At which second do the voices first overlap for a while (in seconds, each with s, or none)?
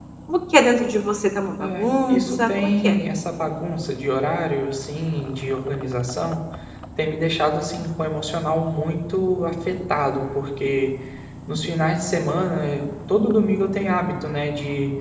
1.6 s